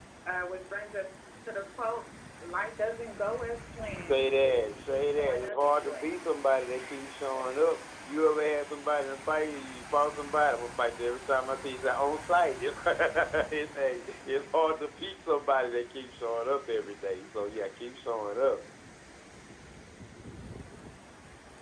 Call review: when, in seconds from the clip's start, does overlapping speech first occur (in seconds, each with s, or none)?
3.9 s